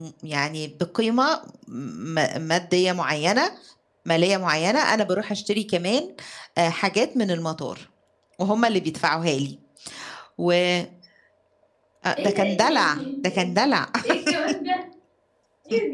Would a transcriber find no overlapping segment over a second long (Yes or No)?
No